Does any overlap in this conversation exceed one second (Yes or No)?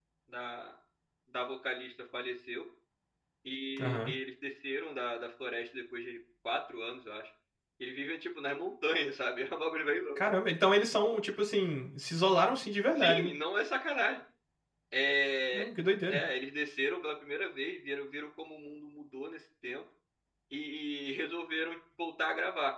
No